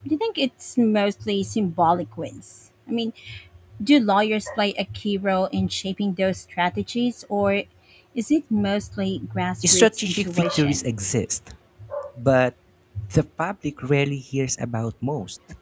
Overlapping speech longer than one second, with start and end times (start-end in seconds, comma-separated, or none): 9.7-10.9